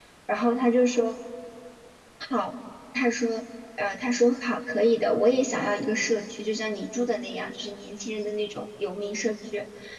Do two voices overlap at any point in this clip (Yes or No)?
No